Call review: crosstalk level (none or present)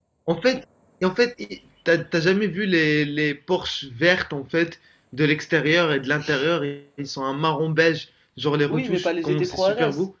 present